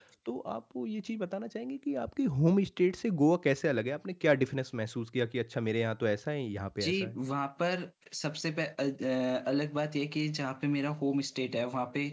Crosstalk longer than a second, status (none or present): none